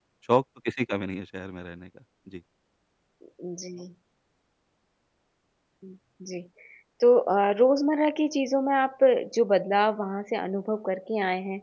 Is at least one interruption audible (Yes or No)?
No